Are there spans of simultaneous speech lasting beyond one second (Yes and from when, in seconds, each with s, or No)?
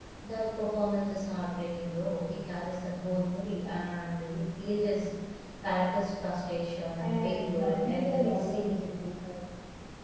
Yes, from 7.0 s